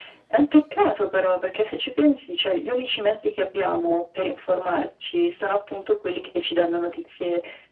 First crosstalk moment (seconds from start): none

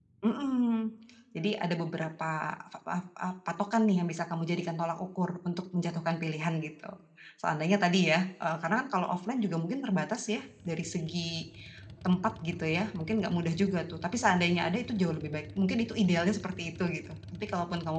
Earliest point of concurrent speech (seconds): none

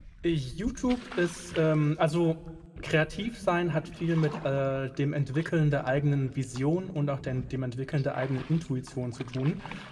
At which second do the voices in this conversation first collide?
none

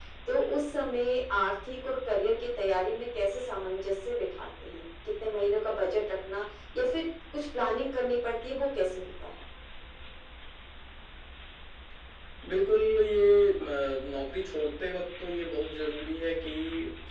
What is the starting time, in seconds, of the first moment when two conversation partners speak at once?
none

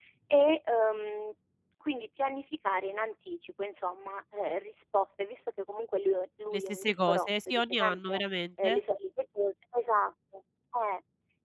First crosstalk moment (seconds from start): 6.5 s

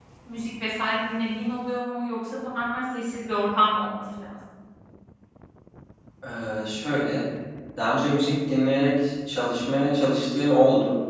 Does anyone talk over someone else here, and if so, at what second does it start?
none

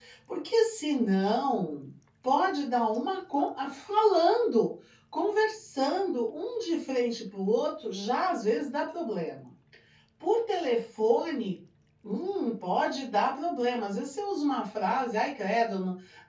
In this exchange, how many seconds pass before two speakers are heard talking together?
none

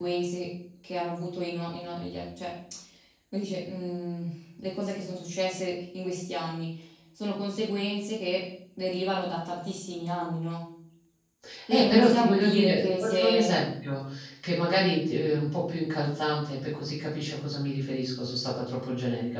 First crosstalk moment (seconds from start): 11.7 s

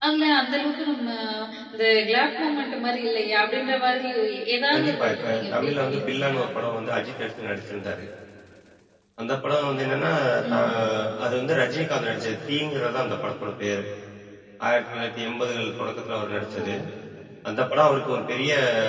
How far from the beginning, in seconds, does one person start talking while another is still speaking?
4.7 s

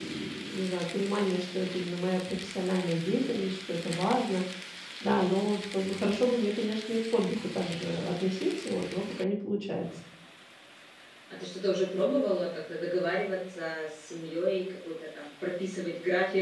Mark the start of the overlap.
none

